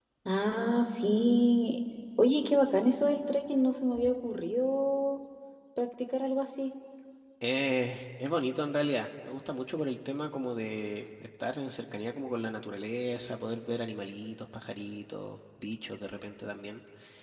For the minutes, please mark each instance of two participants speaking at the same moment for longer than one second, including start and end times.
none

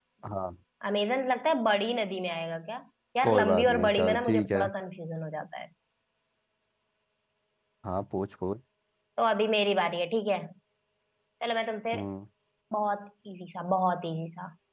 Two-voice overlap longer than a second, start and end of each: 3.2-4.6

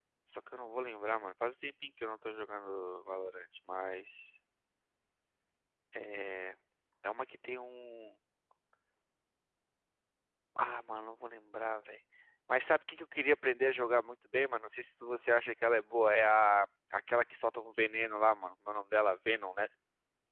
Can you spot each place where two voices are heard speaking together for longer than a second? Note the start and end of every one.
none

